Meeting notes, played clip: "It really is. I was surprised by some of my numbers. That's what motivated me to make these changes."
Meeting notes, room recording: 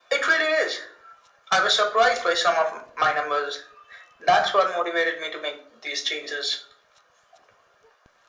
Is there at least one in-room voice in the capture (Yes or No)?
No